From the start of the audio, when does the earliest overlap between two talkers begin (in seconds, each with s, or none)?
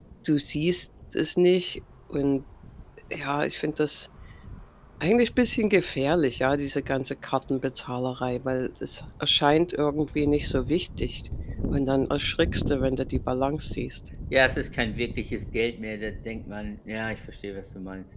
none